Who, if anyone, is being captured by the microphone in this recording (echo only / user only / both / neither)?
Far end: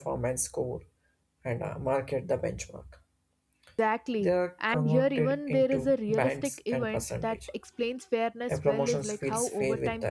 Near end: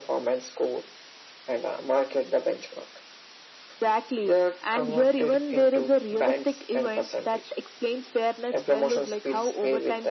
echo only